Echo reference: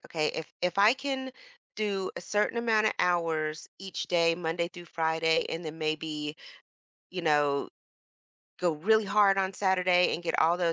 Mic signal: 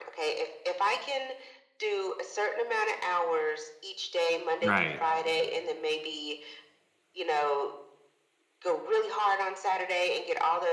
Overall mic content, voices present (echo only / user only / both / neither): both